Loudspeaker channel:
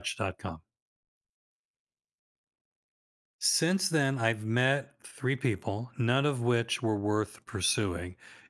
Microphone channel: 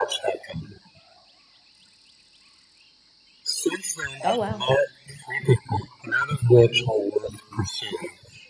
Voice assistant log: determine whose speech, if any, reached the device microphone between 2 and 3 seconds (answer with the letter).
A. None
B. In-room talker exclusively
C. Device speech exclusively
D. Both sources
A